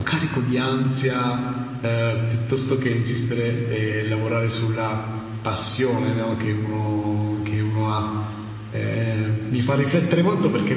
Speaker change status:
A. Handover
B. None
B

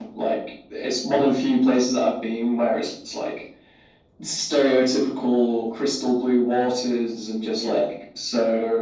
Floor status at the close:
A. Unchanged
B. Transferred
A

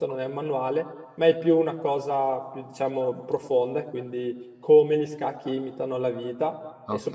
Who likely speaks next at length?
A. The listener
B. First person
B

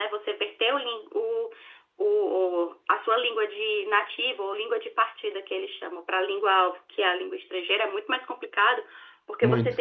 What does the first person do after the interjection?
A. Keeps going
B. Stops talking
A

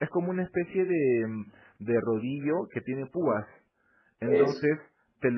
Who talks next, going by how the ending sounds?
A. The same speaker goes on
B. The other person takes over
A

